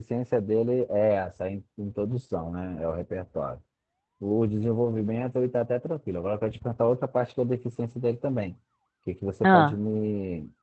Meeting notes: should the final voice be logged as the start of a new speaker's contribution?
No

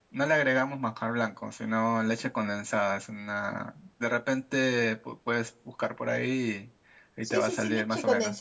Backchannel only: No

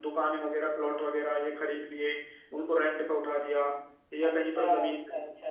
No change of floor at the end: No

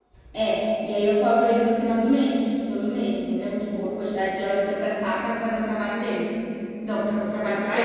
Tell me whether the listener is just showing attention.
No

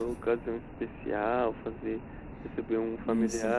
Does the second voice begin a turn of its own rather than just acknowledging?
No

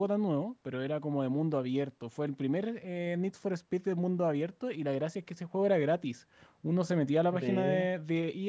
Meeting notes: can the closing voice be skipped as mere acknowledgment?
Yes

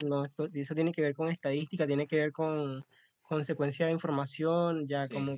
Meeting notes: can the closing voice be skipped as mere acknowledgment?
Yes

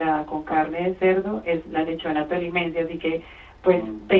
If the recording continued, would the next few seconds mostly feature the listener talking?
No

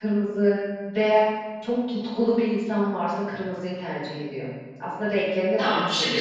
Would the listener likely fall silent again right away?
No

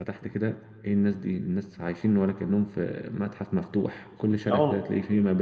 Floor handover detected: No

